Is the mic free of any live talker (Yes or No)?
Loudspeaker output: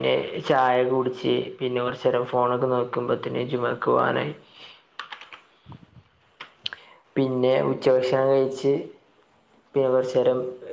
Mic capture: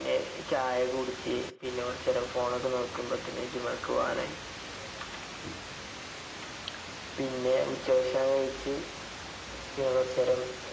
Yes